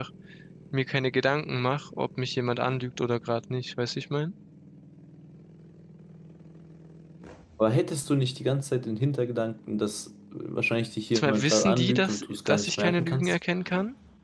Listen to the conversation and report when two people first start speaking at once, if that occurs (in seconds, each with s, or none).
11.1 s